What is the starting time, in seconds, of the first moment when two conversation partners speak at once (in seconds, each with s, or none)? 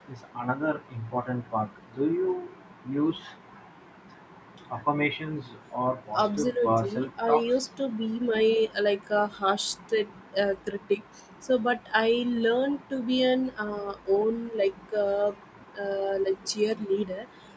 6.2 s